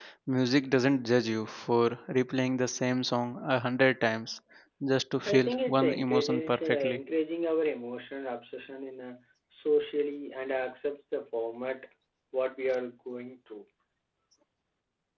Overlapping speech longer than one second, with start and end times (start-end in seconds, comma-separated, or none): 5.3-7.0